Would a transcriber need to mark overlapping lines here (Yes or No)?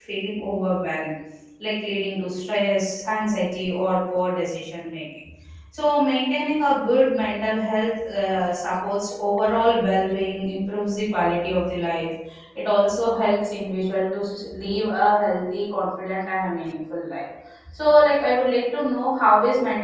No